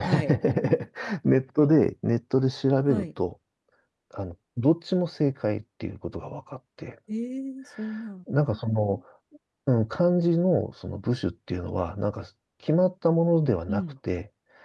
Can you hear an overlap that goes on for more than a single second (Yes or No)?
No